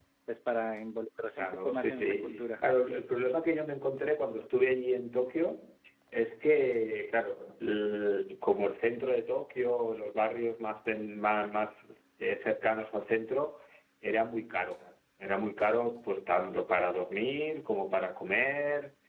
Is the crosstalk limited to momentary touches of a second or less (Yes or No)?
No